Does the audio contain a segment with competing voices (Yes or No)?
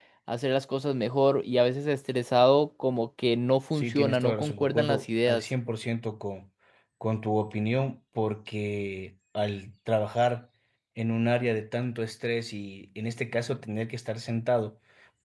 Yes